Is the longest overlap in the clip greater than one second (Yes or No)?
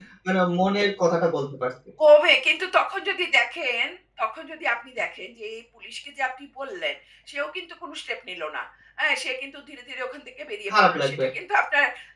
No